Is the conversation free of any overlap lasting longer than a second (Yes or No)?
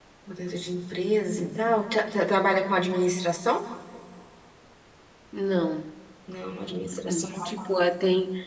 Yes